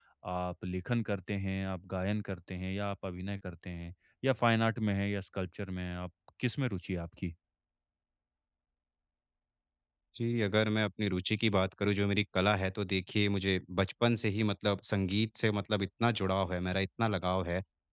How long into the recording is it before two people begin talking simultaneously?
none

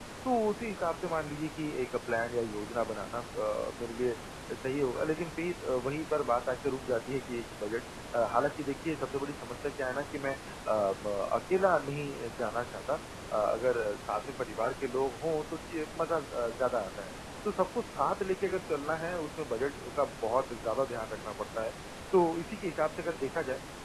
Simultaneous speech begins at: none

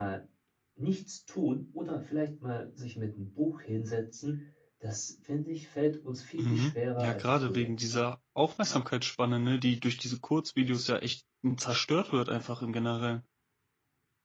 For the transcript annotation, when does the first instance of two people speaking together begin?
6.4 s

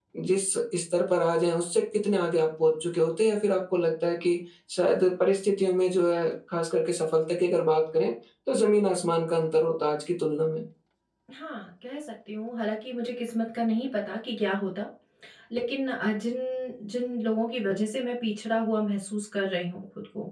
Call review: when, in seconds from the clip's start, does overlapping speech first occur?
none

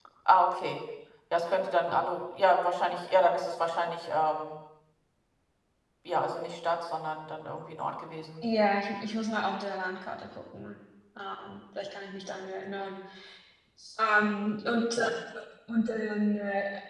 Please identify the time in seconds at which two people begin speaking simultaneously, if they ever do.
none

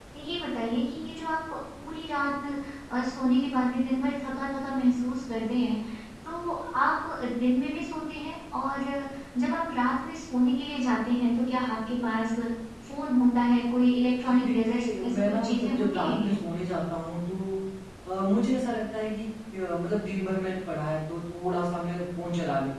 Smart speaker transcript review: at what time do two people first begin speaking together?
14.2 s

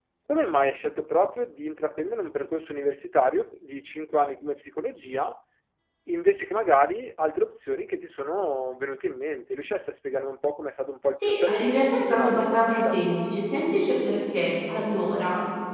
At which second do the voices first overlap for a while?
11.2 s

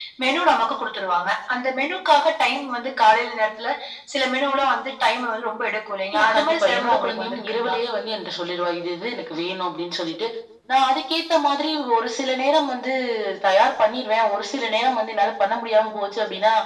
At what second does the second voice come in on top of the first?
6.1 s

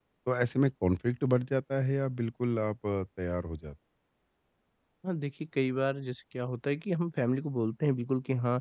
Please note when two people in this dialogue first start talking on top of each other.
none

